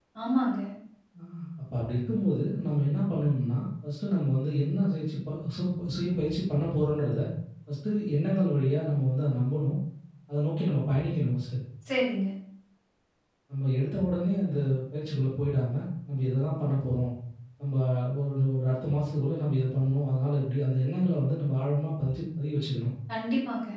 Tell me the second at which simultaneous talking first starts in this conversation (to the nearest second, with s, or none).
none